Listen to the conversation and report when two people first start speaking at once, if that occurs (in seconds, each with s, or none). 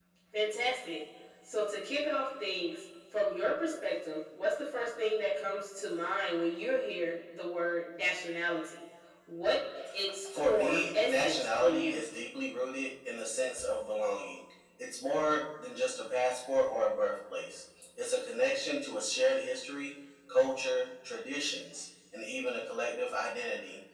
10.3 s